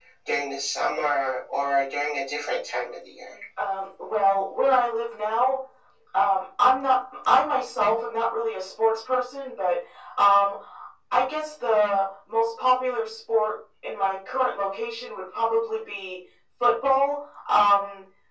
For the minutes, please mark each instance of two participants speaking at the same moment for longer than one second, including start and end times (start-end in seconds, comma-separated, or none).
none